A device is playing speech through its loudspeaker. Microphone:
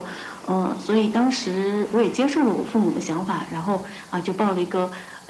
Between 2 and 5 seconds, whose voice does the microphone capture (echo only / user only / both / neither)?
echo only